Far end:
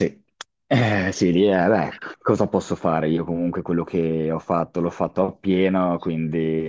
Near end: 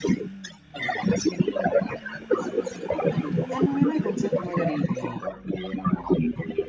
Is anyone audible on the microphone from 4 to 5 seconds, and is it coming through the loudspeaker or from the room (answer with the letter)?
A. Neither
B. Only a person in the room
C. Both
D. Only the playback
C